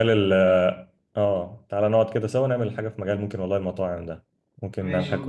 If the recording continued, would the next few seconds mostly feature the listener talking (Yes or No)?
Yes